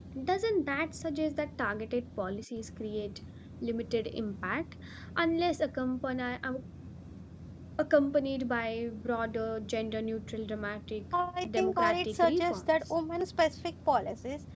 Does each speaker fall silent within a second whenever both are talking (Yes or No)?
No